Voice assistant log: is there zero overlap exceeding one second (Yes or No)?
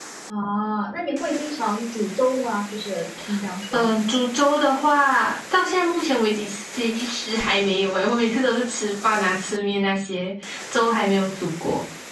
Yes